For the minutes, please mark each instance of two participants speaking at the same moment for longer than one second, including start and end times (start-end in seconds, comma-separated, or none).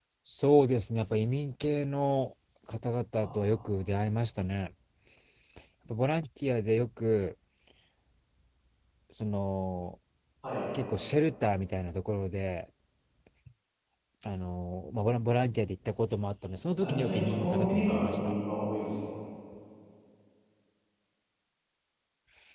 16.7-18.3